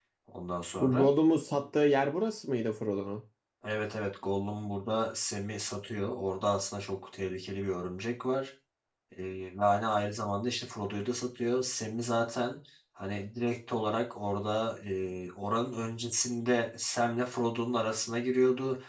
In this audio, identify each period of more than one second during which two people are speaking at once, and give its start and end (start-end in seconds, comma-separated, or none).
none